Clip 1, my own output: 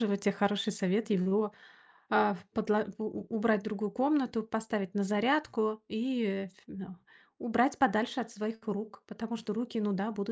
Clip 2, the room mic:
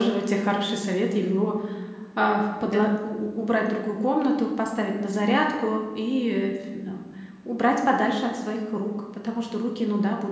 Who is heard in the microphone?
both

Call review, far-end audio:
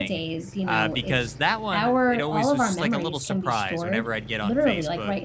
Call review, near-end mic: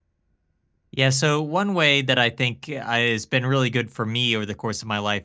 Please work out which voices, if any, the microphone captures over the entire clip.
user only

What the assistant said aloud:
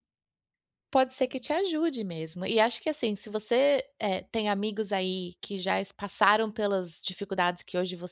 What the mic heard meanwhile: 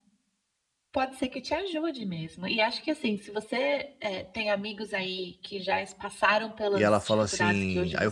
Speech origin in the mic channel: both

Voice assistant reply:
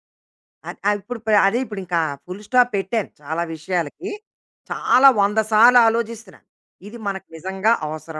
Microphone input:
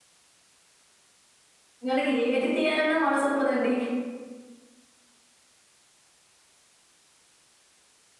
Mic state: user only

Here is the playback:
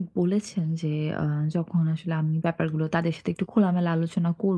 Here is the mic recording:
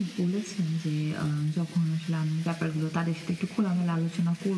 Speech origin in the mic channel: echo only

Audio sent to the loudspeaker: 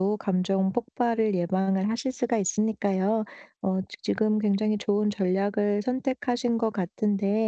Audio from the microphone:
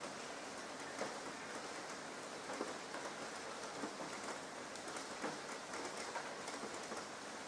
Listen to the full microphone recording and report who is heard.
neither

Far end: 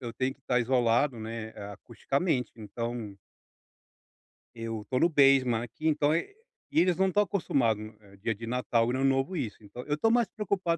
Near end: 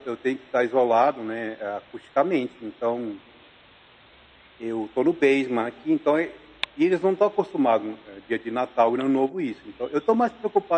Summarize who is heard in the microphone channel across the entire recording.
echo only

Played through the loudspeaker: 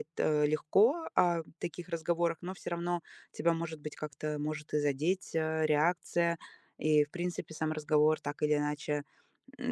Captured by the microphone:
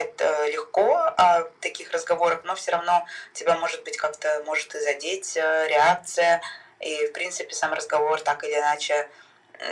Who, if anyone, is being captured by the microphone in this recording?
echo only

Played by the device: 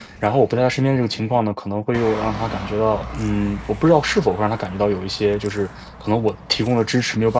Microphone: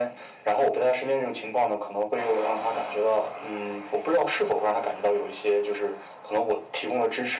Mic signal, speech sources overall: echo only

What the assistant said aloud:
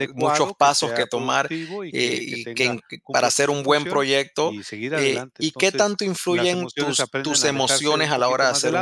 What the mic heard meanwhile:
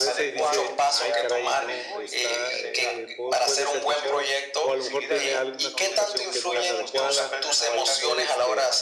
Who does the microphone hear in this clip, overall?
both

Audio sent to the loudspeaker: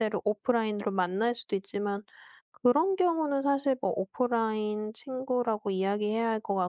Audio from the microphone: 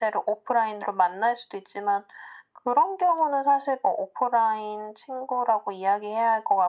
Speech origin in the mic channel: echo only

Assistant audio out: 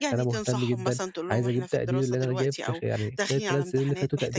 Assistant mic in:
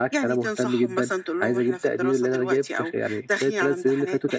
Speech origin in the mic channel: echo only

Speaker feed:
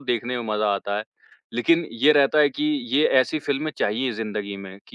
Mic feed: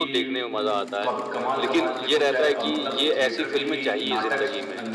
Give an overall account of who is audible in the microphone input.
both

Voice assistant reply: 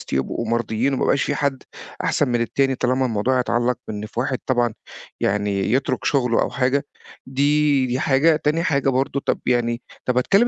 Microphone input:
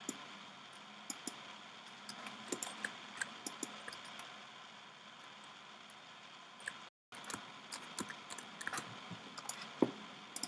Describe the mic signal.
neither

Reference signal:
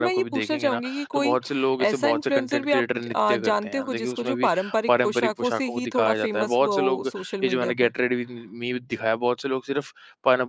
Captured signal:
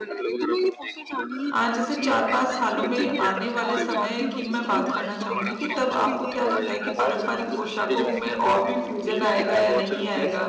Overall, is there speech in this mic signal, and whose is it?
both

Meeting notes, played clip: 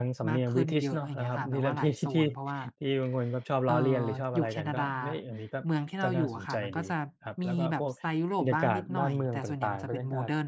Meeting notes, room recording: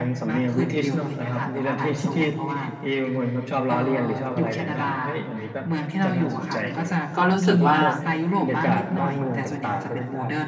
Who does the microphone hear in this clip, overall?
both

